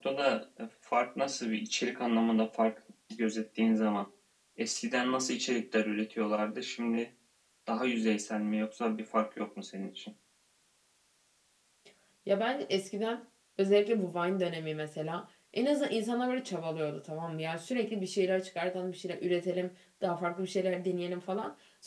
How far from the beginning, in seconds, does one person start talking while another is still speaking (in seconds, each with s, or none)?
none